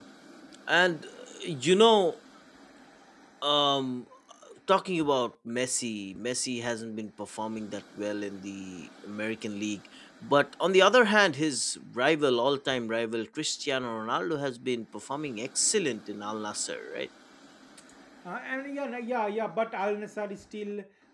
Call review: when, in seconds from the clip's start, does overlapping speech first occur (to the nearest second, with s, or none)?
none